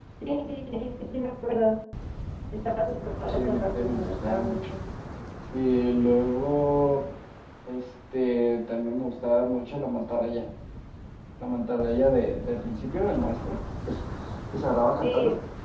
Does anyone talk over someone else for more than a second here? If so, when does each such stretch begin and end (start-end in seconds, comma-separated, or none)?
3.3-4.7